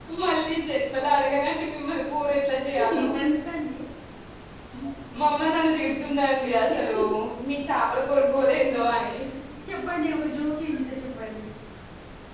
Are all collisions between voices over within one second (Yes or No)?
Yes